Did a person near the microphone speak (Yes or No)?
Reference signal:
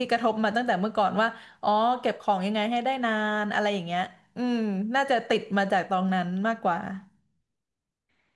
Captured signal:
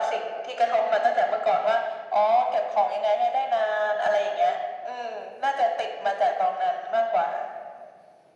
No